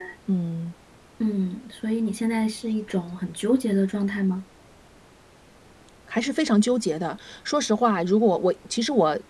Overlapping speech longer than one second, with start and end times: none

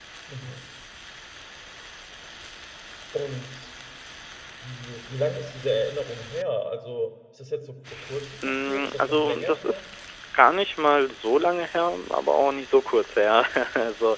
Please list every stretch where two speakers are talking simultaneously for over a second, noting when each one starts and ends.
8.4-9.8

